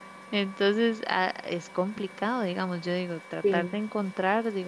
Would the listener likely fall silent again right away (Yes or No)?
Yes